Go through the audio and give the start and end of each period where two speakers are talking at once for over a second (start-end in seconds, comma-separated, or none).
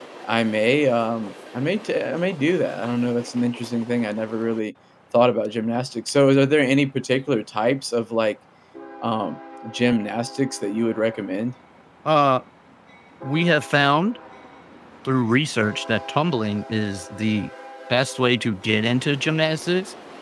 none